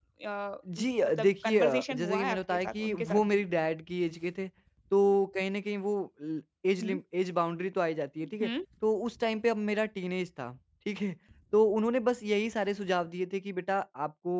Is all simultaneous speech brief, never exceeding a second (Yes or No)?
No